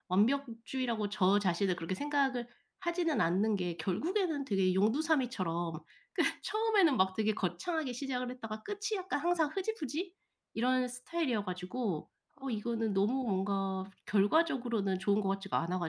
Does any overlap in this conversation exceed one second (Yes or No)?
No